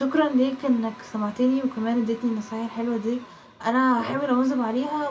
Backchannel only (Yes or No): Yes